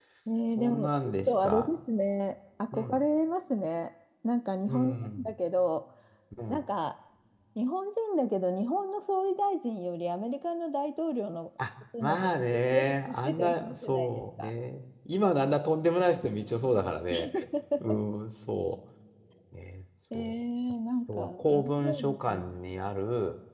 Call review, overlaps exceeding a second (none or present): present